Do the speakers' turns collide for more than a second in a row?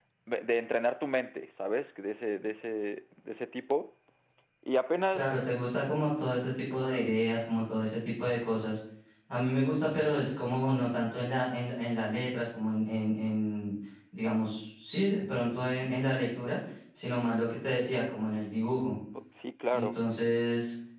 No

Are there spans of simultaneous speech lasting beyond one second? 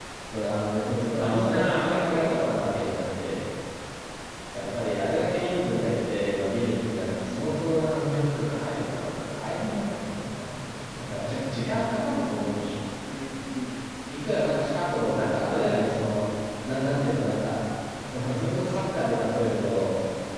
Yes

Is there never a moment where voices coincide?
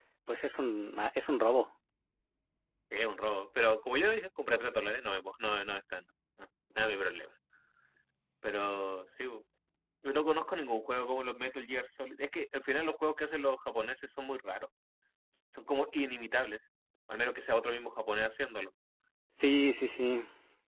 Yes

